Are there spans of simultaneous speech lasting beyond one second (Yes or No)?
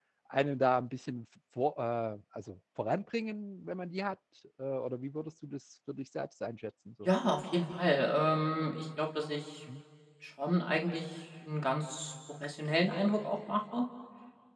No